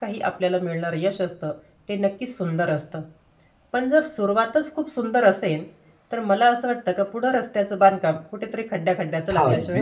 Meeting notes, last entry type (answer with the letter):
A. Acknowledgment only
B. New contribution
B